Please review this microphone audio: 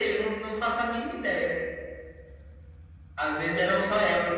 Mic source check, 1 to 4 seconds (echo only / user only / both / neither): echo only